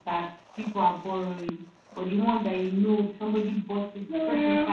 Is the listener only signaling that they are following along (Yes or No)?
Yes